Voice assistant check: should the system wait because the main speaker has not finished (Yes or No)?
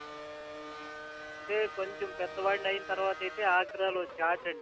Yes